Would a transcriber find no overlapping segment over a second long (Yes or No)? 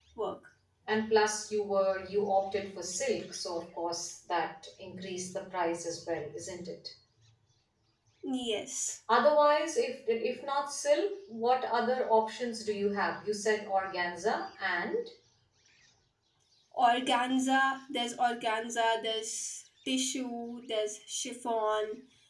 Yes